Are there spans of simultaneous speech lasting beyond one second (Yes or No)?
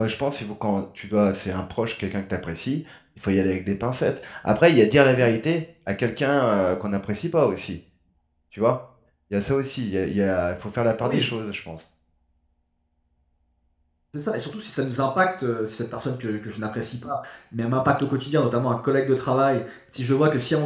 No